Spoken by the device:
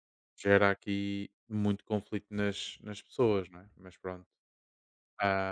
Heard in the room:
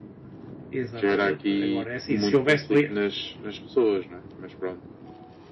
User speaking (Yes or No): Yes